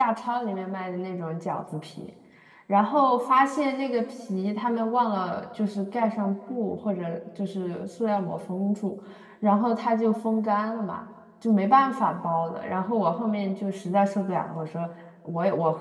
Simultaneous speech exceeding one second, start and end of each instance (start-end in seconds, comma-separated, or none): none